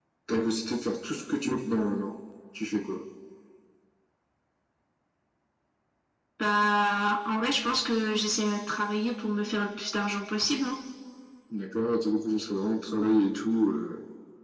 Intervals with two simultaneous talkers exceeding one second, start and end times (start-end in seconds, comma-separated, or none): none